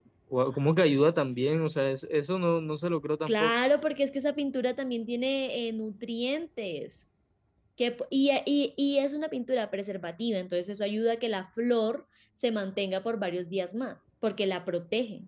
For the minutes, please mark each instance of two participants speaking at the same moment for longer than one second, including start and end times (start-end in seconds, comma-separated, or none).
none